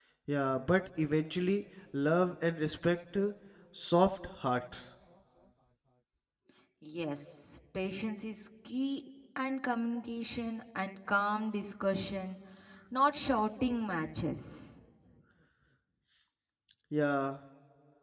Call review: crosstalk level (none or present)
none